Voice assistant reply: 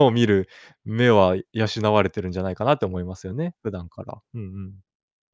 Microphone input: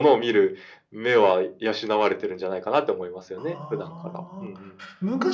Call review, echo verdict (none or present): present